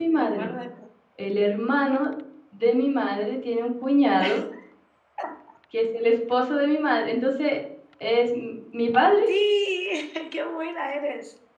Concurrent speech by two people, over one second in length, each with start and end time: none

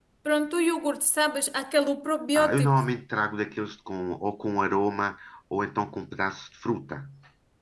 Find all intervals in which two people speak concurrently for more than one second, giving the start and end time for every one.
none

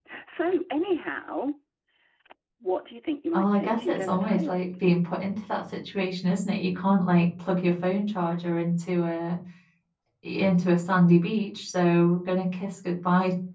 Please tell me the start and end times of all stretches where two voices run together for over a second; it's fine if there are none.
3.3-4.5

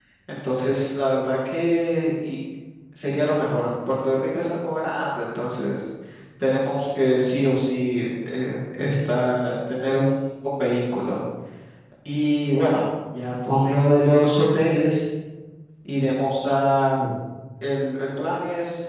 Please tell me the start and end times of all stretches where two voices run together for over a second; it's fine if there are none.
none

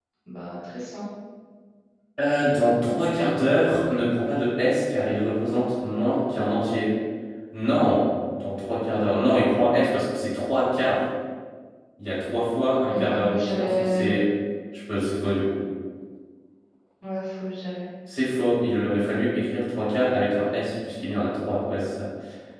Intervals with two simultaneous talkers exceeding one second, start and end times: 12.9-14.2

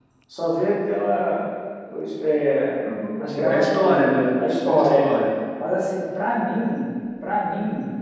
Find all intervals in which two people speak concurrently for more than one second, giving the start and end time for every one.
3.5-5.1

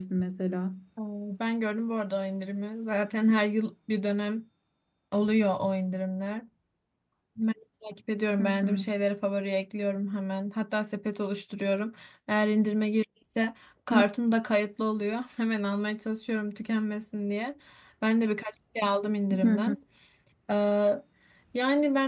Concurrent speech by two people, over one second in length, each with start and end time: none

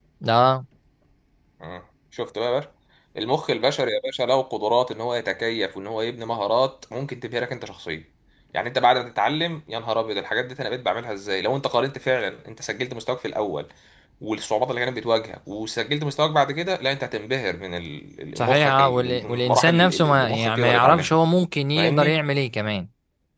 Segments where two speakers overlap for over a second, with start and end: 18.4-21.1

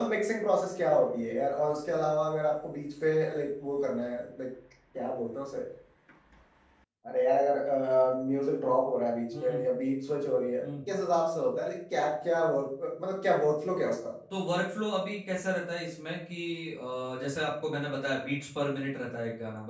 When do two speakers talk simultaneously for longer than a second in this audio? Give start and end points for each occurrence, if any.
none

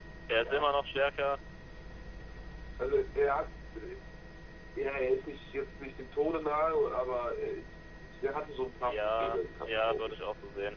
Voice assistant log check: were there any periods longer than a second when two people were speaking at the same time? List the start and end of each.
8.8-10.2

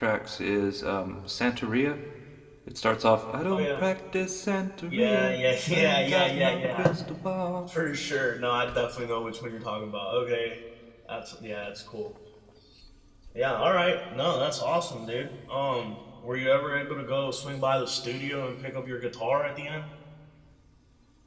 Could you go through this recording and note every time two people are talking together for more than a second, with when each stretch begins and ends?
5.7-7.0

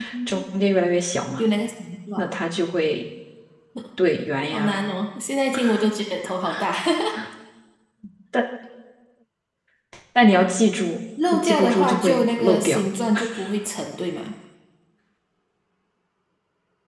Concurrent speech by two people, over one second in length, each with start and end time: 11.3-12.8

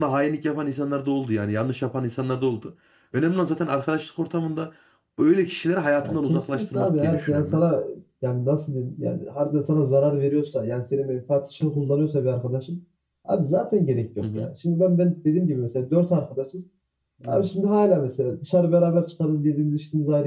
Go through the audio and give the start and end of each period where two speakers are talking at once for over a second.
6.0-7.6

